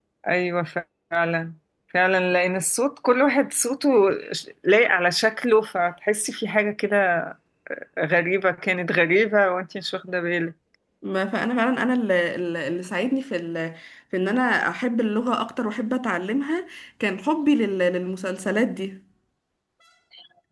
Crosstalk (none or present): none